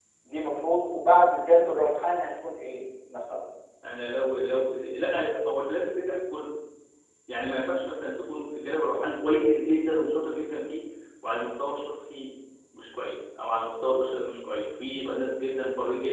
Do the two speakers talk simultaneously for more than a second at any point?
No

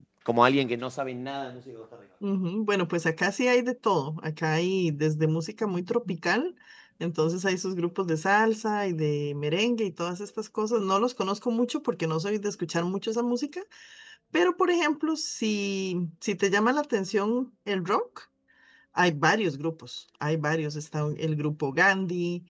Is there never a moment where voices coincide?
Yes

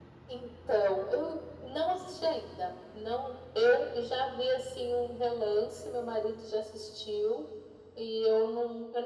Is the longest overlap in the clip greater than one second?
No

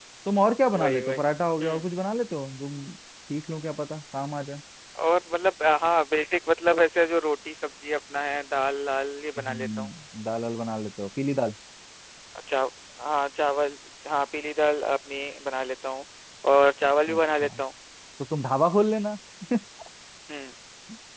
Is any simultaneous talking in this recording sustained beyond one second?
No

